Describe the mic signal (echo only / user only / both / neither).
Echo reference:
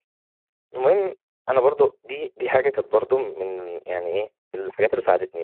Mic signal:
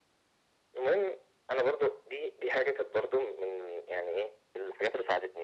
echo only